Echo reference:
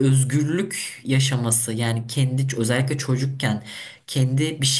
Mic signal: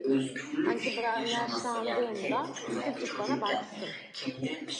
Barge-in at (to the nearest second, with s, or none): 1 s